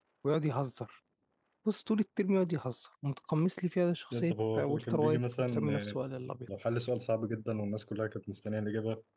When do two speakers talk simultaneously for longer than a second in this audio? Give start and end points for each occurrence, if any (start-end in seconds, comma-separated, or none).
4.1-6.0